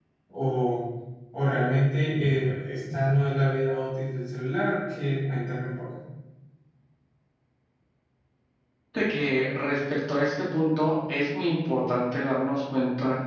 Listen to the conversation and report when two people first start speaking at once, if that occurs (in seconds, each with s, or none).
none